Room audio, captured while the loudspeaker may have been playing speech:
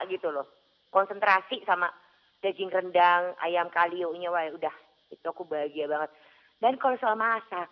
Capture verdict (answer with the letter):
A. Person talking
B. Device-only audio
B